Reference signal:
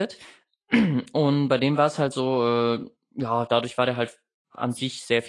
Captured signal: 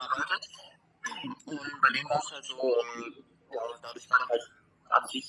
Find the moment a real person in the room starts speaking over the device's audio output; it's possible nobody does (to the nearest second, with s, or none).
none